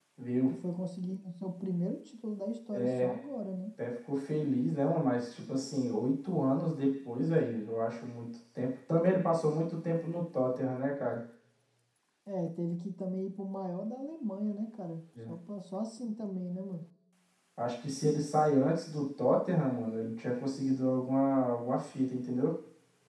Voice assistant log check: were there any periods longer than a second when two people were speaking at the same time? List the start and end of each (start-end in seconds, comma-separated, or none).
none